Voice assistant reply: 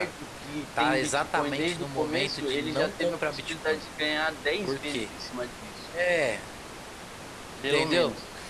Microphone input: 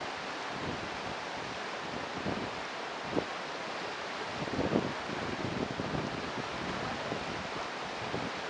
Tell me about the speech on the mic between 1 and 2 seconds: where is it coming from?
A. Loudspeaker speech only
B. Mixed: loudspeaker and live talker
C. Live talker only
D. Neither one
D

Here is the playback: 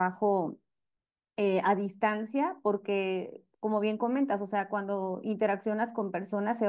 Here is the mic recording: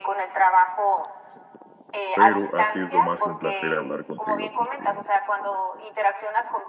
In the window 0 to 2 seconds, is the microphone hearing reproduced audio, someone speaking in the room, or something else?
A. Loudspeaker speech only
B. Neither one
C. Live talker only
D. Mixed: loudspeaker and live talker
A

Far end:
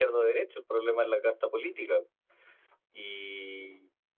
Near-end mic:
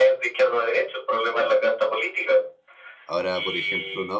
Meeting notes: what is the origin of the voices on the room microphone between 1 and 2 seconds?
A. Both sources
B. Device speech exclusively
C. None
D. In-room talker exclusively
B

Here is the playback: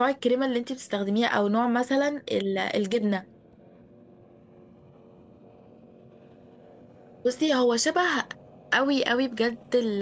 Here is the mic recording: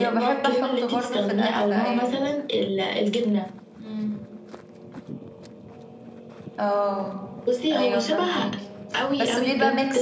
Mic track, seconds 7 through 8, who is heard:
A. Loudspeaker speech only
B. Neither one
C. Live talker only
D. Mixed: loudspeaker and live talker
D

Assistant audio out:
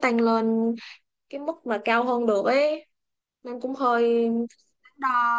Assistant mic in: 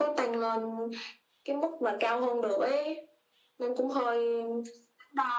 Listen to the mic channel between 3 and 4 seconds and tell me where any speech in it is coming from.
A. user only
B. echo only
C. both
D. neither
B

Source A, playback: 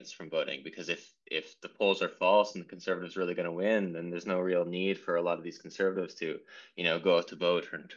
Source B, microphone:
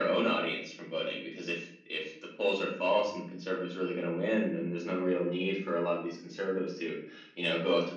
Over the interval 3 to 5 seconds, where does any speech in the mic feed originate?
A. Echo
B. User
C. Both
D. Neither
A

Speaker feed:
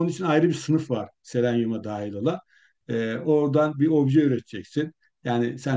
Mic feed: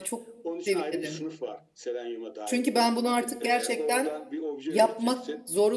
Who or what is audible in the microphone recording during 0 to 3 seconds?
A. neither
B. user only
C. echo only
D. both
D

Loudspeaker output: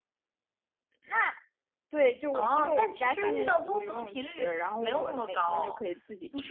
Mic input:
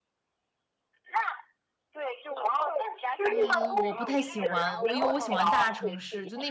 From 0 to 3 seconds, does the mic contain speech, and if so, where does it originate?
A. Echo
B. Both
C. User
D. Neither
A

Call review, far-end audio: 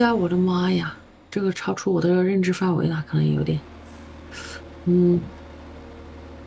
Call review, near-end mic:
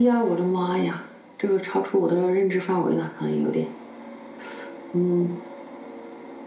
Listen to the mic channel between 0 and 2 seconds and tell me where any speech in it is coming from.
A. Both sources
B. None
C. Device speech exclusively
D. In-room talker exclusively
C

